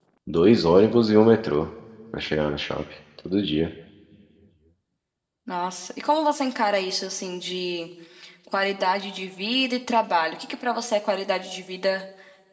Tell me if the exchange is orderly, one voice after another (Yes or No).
Yes